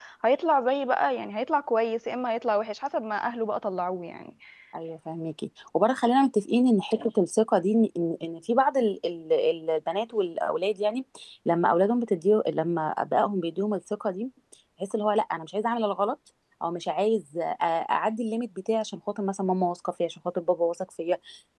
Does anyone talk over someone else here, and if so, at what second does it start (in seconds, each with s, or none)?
none